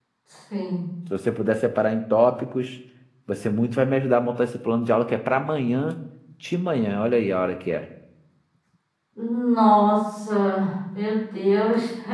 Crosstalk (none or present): none